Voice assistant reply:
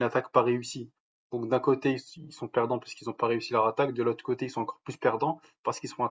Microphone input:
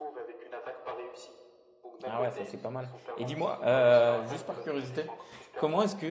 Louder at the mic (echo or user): user